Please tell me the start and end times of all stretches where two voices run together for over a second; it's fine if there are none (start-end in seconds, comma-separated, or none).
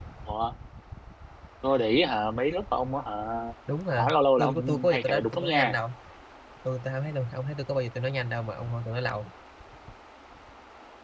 3.9-5.8